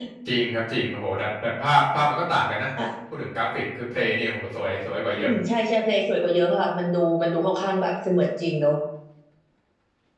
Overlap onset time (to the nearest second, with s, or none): none